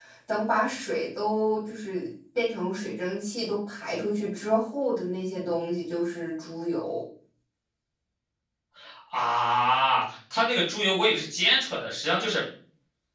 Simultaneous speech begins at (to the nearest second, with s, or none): none